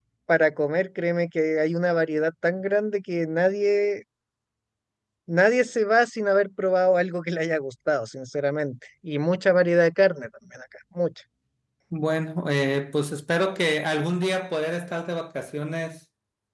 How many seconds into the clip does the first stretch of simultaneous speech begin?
none

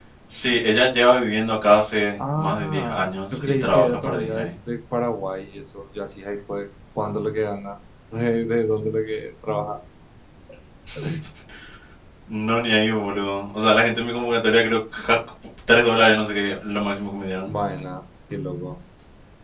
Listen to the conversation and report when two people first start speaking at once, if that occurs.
2 s

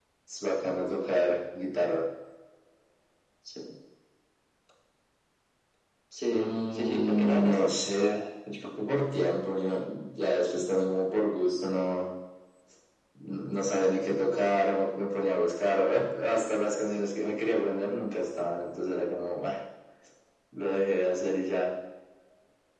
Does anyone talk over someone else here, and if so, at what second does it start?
6 s

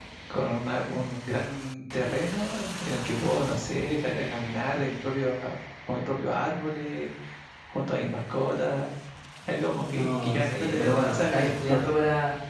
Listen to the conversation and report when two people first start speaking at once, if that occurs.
10 s

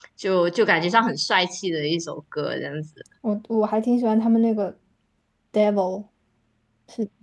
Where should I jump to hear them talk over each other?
none

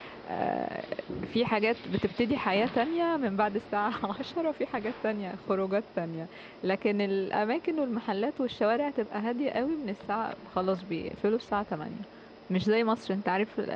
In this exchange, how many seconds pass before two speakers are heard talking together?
none

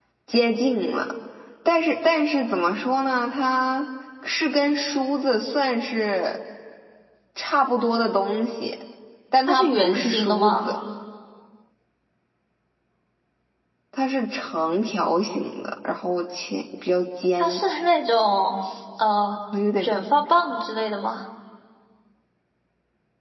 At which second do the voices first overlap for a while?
9 s

